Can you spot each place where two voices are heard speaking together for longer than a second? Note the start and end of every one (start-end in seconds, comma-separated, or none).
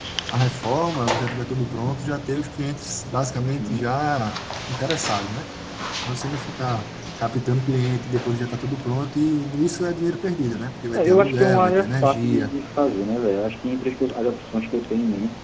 10.9-12.5